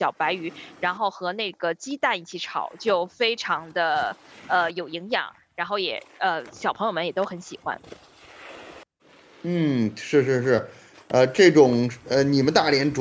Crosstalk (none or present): none